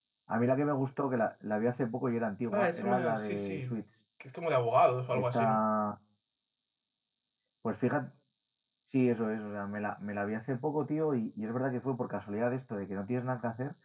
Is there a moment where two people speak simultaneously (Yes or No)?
Yes